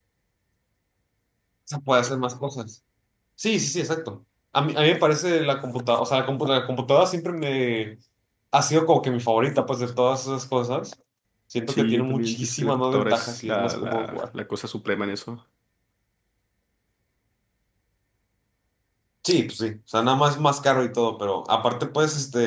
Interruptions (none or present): present